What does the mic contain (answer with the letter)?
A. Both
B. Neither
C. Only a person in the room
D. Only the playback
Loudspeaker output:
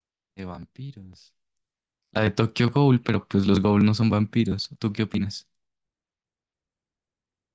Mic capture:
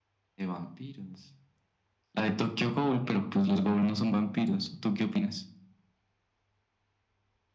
D